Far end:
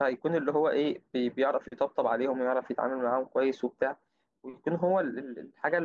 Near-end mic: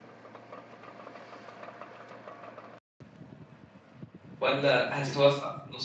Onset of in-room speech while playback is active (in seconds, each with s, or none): 4.4 s